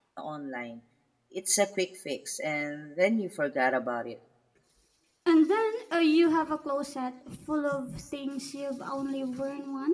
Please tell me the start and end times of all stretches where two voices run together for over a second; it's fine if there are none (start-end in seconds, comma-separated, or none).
none